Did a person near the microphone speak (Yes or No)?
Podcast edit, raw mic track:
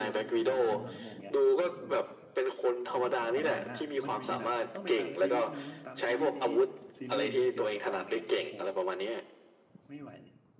Yes